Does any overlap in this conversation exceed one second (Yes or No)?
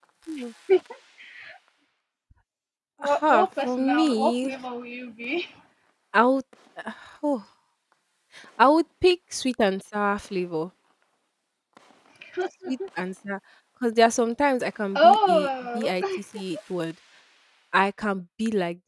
Yes